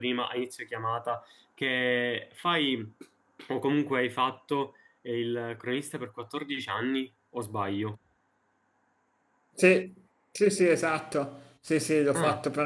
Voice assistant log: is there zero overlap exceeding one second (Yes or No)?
Yes